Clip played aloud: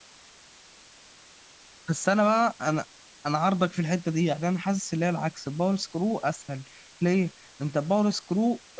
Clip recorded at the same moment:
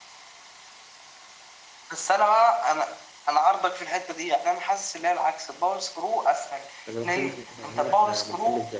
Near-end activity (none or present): present